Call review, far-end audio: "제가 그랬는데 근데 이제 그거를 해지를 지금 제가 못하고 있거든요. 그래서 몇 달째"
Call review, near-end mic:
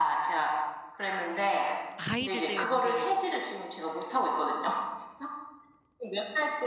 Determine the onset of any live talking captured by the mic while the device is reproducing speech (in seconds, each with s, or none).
2.0 s